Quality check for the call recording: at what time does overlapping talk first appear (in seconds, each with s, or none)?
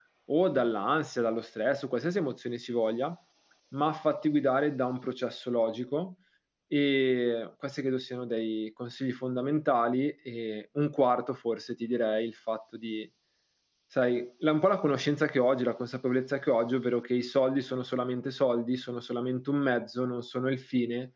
none